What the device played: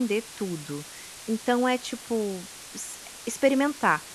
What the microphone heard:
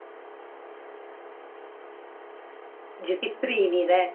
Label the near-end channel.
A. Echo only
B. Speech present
B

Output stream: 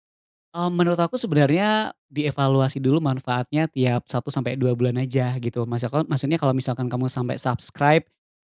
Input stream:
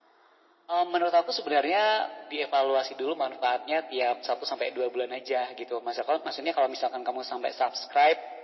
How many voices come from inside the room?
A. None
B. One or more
A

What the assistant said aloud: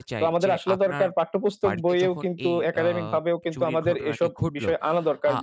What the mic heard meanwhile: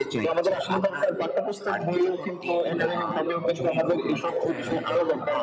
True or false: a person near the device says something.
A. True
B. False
A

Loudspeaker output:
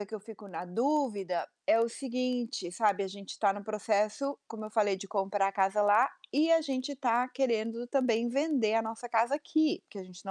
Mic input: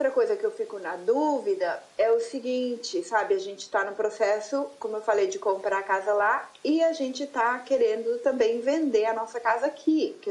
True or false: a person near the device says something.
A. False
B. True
A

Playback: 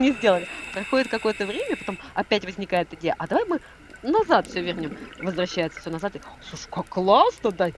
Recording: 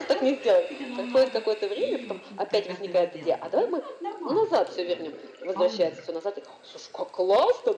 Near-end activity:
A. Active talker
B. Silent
A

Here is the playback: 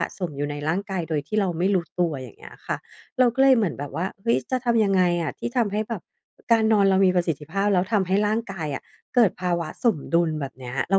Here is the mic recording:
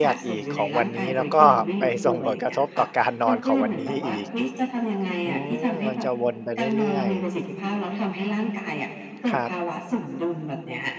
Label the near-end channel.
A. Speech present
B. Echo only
A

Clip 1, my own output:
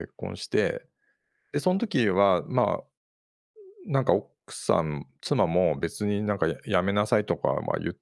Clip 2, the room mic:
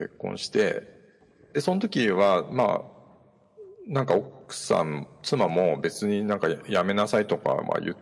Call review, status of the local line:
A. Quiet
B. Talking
A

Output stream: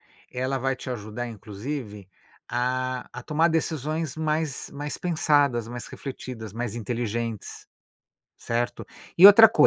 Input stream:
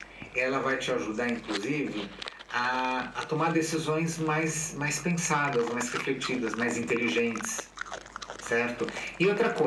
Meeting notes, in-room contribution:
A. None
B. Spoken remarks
A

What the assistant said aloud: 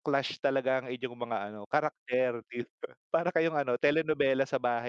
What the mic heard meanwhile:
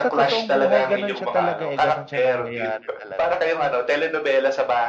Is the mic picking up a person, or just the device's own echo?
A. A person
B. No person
A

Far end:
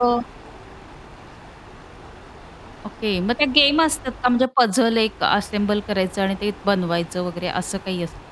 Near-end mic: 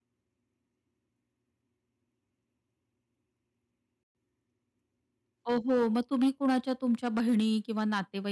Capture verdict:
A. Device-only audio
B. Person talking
B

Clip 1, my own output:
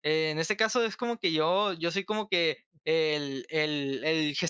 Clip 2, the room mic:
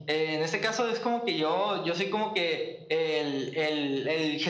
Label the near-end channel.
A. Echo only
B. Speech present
A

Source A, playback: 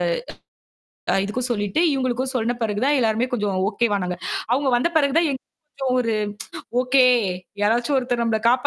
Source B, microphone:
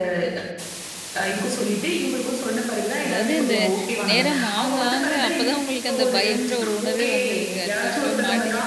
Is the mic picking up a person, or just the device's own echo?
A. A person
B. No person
A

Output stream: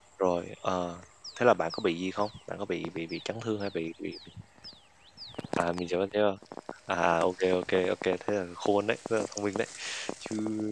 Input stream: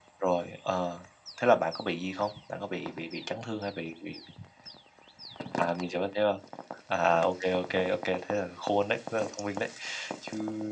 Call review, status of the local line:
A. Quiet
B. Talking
A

